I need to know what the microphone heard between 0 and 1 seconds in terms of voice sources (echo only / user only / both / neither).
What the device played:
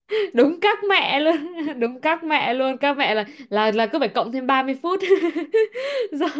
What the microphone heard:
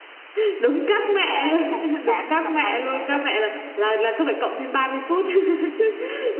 echo only